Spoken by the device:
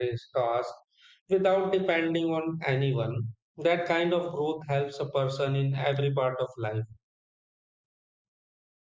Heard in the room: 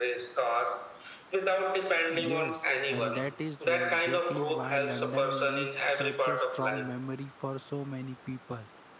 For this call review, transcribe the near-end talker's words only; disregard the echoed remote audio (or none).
Yes, and that is why- exactly why London leaves such a strong memory for so many people.